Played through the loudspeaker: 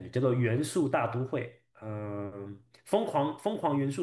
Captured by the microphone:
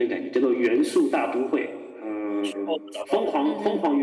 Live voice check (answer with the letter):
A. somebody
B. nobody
A